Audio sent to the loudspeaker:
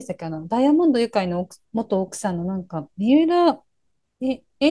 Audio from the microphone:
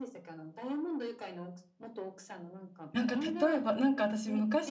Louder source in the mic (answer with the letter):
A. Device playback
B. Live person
B